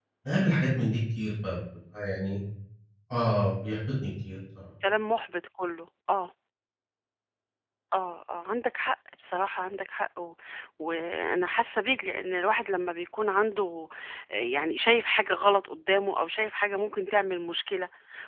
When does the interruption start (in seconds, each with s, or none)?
none